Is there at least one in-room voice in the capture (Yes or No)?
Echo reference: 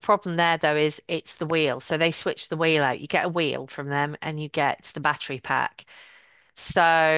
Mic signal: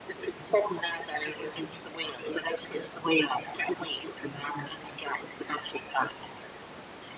No